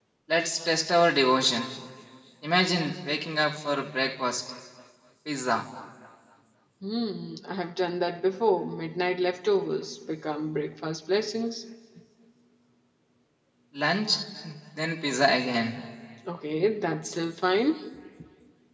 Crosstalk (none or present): none